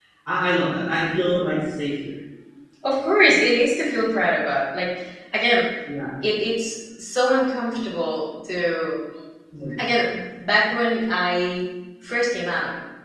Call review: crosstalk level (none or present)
none